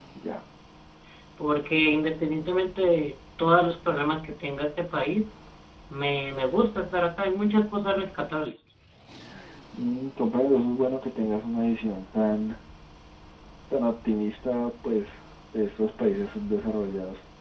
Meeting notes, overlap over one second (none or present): none